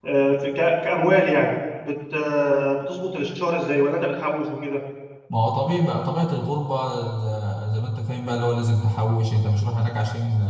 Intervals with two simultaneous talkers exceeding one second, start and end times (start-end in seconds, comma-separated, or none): none